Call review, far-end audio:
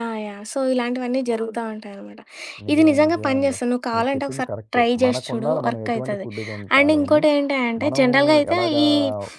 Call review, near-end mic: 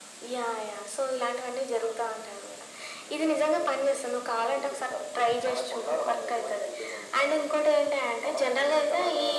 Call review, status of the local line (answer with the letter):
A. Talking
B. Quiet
B